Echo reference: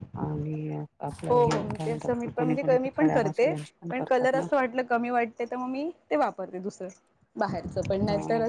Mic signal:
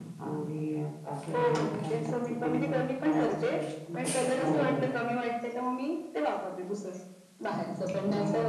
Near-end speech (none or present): present